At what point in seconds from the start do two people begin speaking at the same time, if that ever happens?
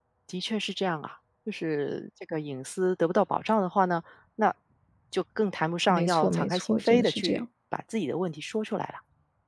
5.9 s

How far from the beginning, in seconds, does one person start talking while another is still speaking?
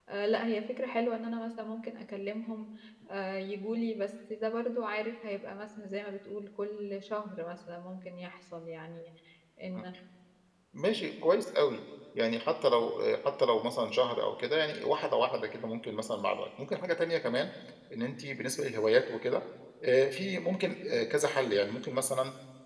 none

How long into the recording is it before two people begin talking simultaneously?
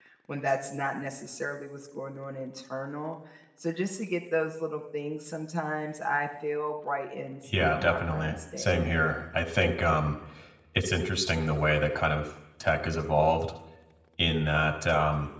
7.5 s

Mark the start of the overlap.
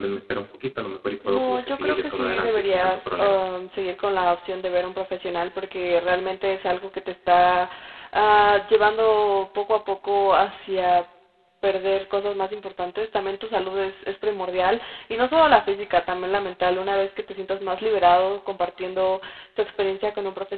1.3 s

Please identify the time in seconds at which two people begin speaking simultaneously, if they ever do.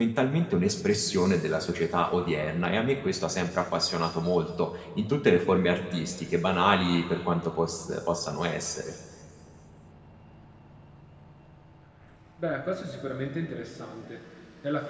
none

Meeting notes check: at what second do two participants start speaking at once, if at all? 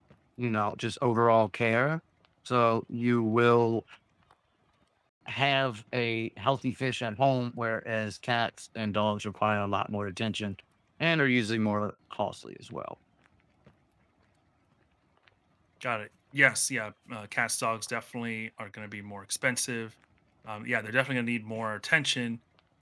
none

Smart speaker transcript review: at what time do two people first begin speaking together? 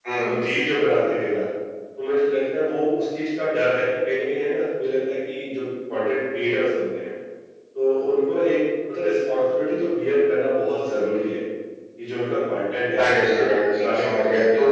12.9 s

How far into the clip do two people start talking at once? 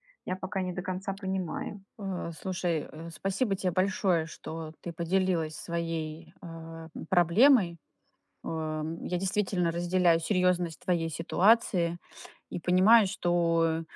none

